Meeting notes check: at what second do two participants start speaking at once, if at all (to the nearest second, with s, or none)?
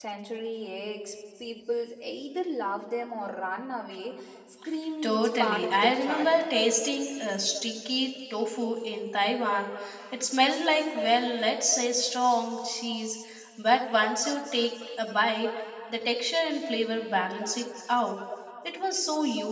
5 s